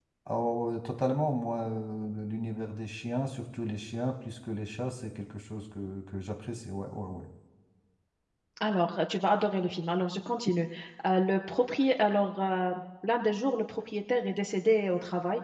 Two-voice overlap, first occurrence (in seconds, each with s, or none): none